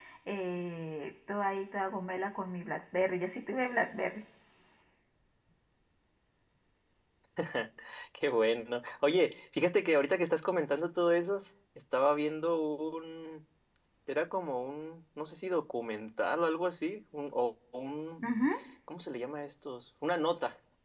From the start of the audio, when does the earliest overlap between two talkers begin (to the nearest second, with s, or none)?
none